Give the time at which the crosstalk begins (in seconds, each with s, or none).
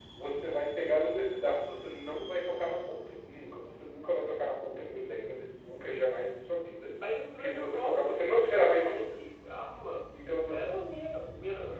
7.4 s